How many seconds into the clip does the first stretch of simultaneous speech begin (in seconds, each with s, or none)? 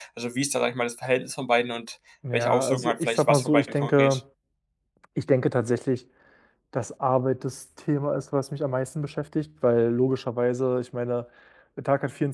2.2 s